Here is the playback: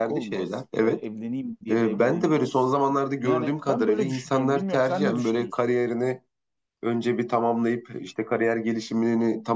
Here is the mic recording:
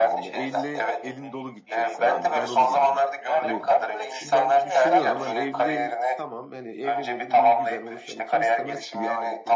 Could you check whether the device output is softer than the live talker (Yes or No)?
No